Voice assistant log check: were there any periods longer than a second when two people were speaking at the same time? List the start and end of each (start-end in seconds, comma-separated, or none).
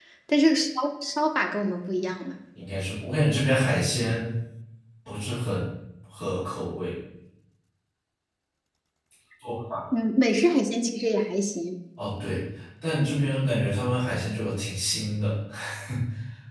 none